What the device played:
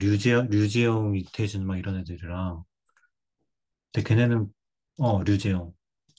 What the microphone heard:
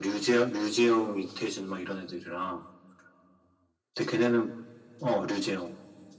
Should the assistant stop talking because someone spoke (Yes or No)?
No